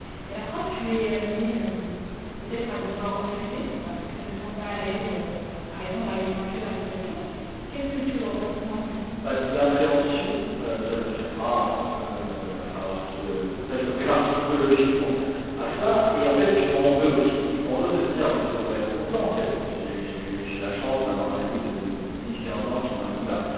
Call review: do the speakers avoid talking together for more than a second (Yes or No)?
Yes